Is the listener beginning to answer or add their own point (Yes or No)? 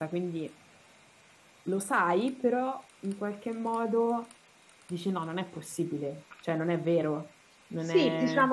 Yes